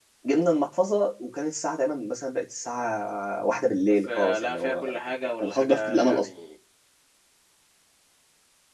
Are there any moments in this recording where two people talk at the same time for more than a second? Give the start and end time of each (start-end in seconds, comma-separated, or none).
3.9-6.3